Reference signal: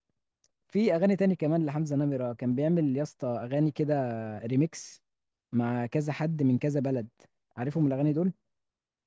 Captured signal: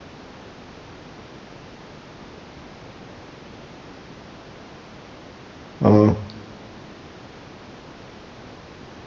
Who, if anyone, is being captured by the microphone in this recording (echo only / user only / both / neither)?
user only